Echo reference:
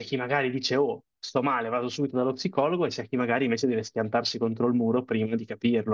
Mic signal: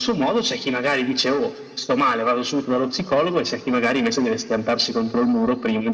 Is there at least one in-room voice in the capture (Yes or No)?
No